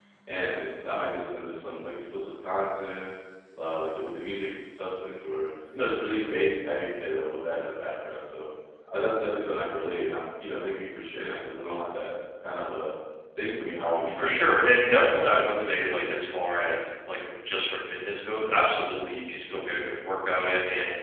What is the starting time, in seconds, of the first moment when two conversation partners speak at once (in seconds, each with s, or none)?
14.2 s